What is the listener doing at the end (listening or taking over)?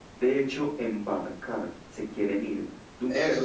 taking over